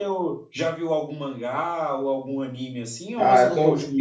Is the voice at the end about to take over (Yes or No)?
Yes